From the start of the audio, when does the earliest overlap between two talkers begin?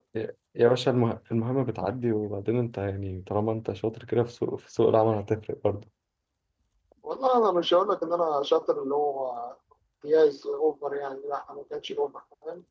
none

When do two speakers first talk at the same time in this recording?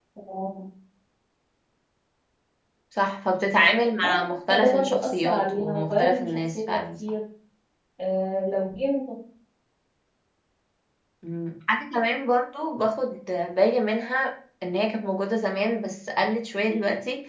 4.0 s

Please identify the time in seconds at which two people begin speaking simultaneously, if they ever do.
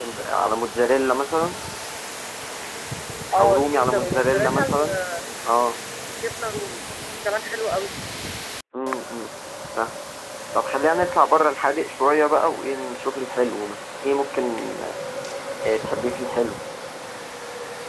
3.4 s

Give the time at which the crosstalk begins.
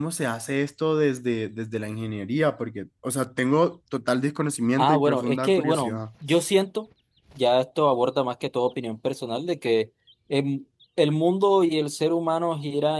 4.8 s

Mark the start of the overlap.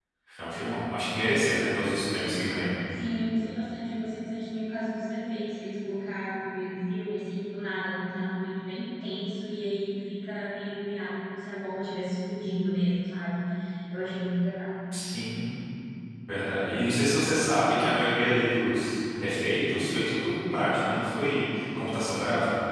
none

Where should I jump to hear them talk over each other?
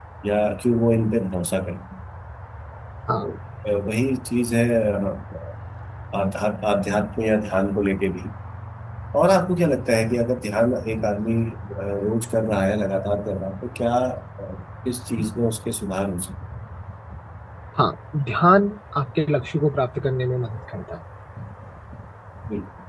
none

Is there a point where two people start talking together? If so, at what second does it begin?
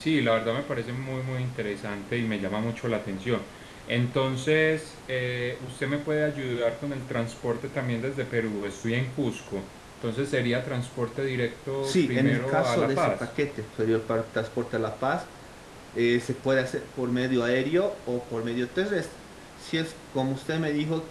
11.8 s

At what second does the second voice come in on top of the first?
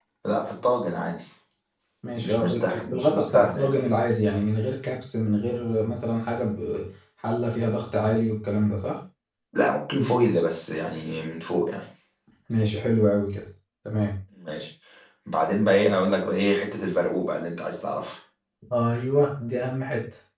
2.2 s

